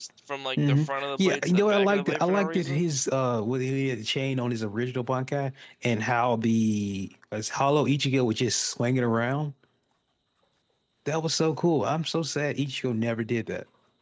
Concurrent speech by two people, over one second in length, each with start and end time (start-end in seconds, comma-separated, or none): 0.6-2.9